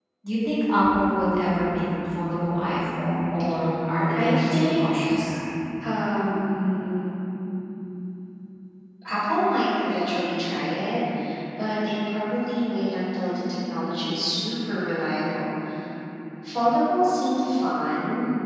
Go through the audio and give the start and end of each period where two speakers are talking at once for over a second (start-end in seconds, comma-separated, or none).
4.1-5.3